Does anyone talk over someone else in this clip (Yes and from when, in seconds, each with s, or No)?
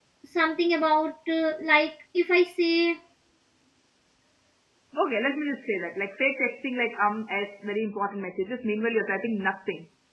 No